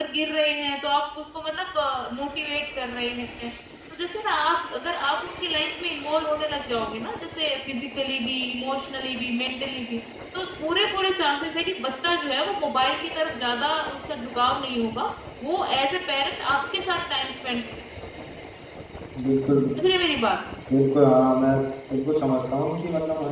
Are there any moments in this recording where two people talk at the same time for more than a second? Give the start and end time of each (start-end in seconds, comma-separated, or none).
none